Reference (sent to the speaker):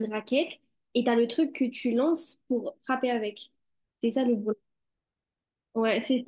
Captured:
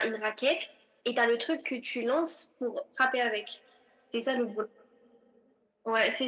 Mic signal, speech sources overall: echo only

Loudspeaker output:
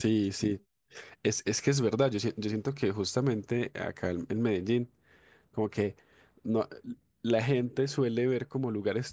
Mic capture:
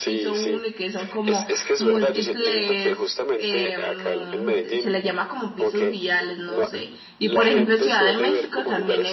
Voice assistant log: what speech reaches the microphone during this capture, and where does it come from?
both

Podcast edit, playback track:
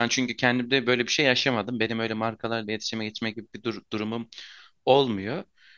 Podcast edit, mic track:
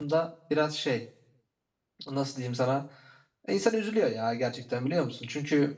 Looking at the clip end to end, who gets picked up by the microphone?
user only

